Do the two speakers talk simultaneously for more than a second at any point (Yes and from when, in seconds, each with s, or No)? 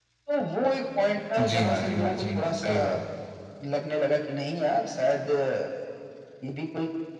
Yes, from 1.4 s